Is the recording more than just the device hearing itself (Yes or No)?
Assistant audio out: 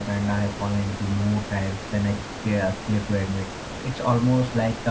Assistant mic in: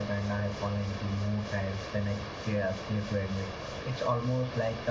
No